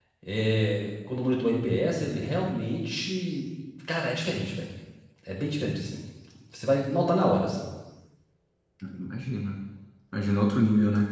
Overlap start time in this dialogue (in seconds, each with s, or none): none